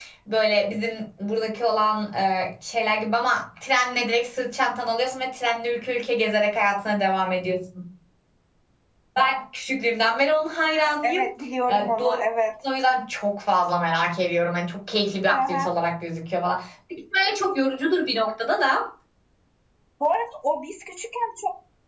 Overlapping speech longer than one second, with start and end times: none

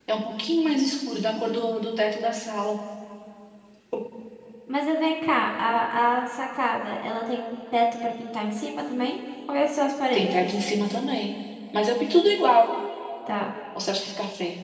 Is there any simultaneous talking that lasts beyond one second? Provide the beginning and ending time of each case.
none

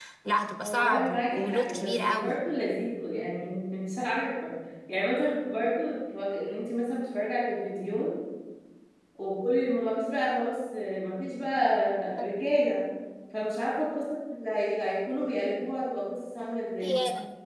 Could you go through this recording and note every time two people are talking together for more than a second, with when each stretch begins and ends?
0.6-2.3

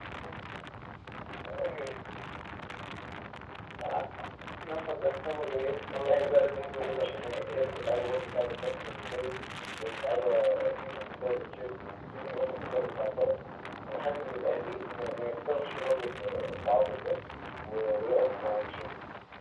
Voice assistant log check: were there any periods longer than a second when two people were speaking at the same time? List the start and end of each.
5.9-7.8

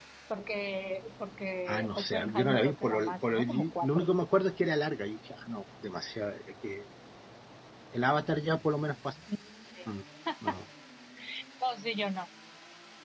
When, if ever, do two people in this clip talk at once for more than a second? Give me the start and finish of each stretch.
1.7-4.1

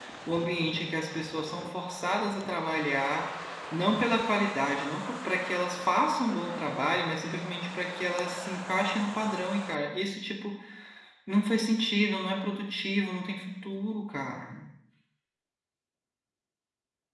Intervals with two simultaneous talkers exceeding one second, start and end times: none

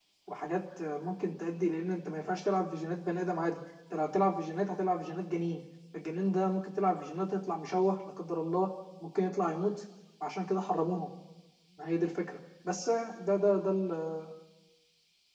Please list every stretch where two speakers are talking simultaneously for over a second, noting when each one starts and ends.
none

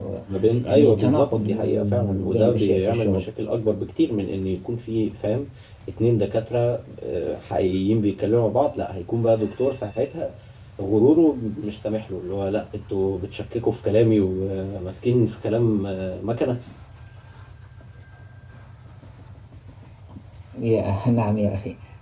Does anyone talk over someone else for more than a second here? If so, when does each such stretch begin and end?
0.6-3.3

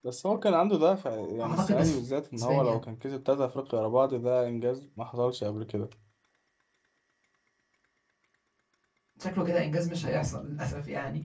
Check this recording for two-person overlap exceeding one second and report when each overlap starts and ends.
none

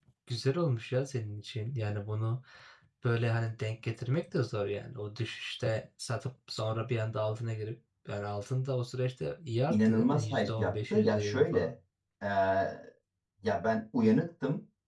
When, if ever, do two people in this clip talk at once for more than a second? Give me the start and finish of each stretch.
9.7-11.7

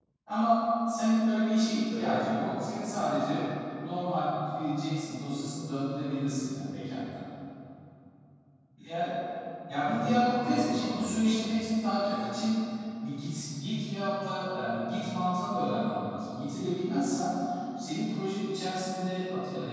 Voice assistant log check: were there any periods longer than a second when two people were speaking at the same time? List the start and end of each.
9.8-11.2

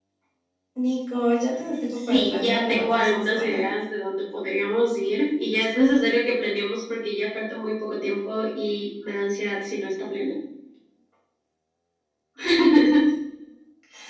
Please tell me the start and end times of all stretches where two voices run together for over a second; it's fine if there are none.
2.1-3.6

